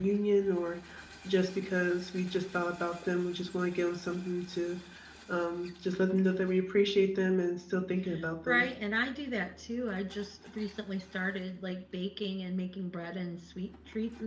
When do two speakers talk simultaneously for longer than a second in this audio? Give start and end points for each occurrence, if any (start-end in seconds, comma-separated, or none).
none